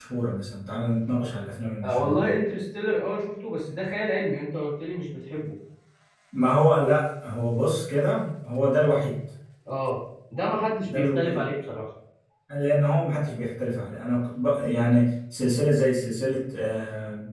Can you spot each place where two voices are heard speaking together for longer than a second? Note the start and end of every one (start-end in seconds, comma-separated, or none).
none